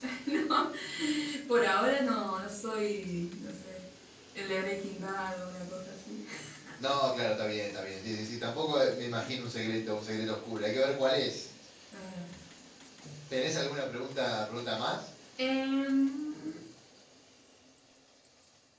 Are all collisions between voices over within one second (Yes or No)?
Yes